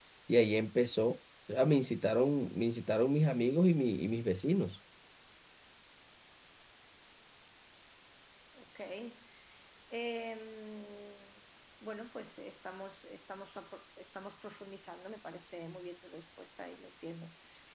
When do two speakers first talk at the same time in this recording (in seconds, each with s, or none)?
none